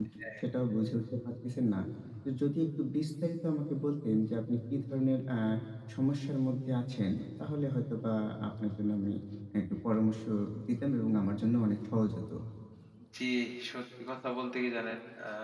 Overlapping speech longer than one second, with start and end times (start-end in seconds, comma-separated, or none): none